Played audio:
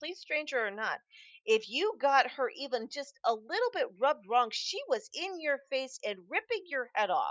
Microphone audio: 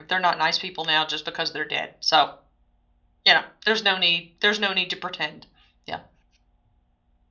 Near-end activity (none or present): present